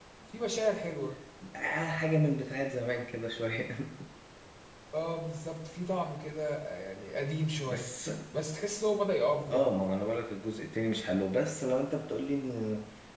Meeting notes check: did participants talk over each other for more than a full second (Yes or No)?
No